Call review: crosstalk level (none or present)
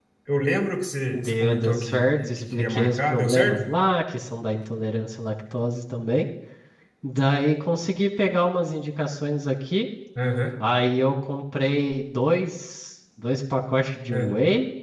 present